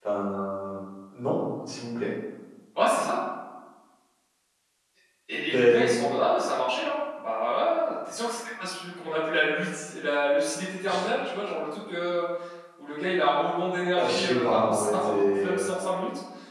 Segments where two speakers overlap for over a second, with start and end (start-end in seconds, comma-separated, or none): 13.9-15.6